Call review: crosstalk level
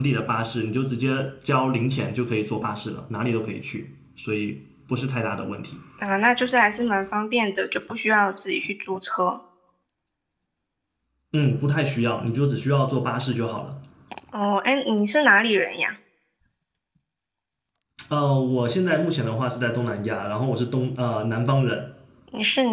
none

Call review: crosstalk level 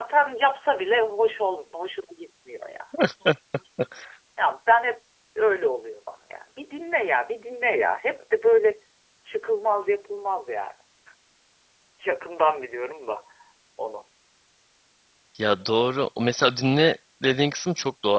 none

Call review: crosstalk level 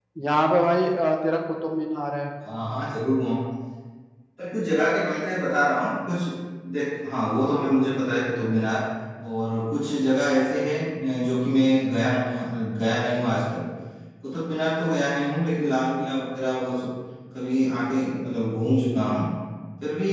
none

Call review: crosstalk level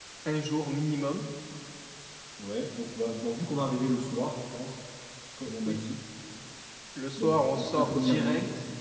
present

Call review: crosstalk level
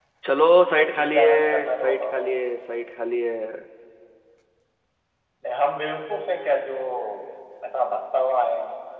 present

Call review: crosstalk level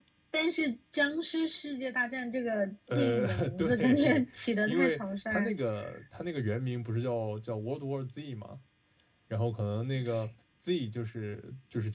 present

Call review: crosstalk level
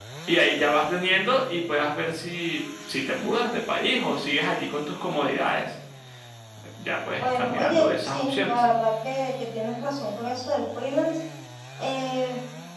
present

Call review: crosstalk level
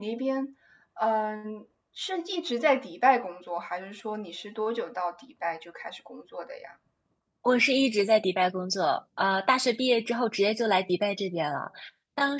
none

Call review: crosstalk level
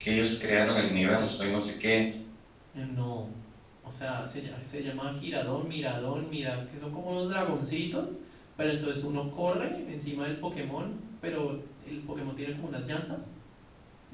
none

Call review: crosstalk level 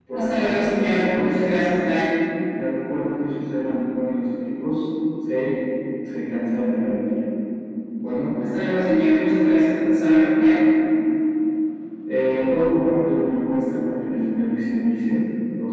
present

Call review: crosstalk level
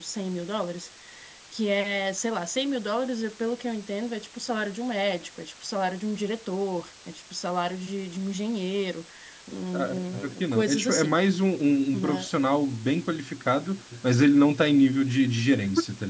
present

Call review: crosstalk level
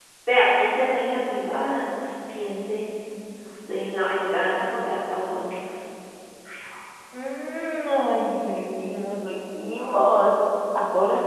none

